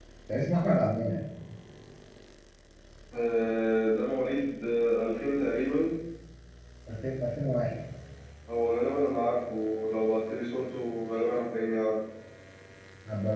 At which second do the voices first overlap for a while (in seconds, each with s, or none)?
none